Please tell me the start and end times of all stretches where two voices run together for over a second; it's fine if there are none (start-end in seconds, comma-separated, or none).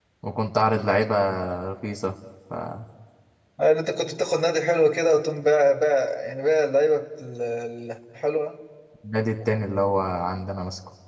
none